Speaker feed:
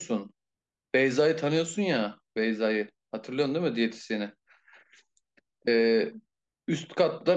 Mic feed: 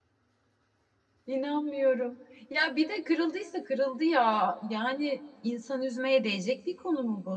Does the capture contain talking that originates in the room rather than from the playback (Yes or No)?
Yes